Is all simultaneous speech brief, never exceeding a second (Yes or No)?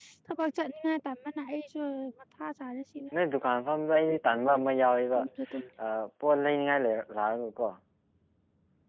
Yes